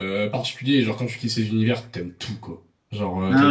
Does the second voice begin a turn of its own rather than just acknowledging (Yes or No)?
No